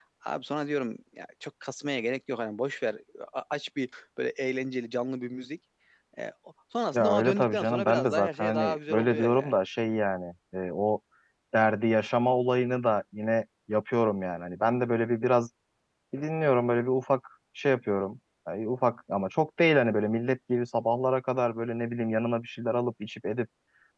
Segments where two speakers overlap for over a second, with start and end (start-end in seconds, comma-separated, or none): 6.9-9.5